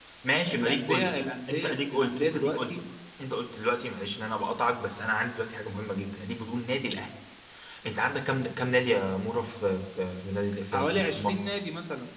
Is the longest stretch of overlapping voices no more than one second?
No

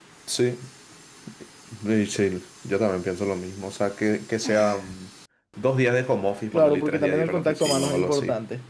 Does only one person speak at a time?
No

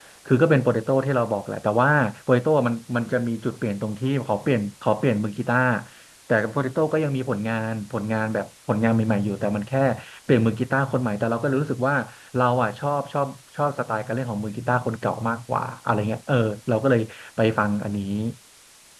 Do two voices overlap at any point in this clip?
No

